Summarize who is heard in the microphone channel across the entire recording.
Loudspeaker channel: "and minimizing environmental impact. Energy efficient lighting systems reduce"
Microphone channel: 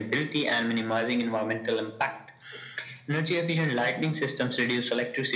echo only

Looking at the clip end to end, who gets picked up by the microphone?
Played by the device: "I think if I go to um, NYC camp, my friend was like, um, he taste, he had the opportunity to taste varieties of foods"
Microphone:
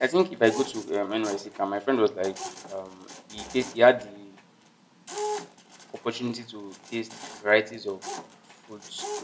echo only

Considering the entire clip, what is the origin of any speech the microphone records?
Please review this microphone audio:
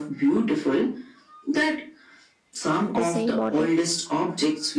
both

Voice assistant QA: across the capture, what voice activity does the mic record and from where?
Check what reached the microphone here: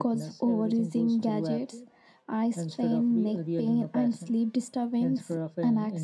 echo only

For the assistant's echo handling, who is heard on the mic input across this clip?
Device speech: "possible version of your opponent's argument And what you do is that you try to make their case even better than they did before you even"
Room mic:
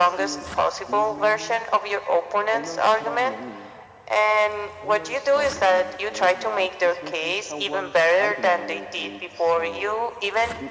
both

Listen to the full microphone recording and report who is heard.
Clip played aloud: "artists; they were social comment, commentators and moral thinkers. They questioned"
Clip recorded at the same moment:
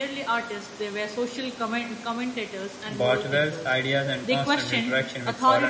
both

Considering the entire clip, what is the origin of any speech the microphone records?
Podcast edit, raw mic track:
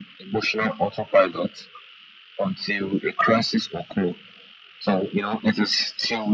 echo only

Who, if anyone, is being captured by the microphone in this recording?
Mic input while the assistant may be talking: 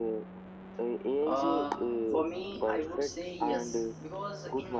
both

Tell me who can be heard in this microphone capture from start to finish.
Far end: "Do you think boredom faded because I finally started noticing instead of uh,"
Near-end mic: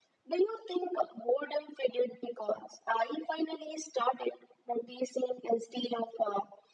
echo only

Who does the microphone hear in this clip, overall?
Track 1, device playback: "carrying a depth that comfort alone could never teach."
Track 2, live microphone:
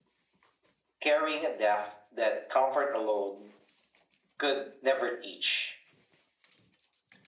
echo only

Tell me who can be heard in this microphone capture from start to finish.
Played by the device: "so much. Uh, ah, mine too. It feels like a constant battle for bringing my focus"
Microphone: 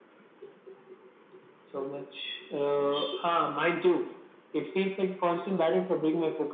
echo only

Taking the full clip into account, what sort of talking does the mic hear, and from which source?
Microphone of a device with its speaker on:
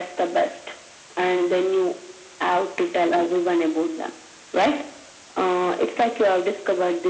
echo only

